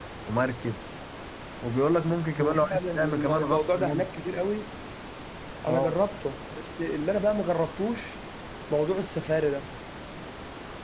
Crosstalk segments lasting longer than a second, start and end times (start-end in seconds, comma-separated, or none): 2.4-4.1